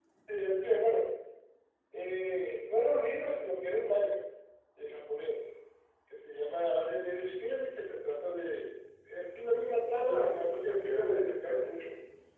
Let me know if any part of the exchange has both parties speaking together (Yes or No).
Yes